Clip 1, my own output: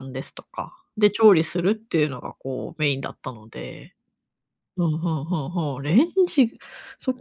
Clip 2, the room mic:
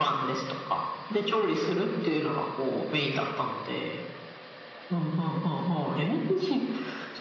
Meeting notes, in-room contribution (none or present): none